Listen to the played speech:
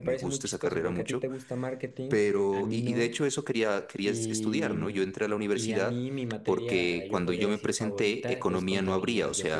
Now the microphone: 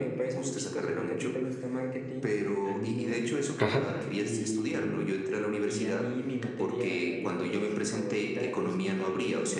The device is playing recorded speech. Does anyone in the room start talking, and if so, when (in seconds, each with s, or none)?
3.6 s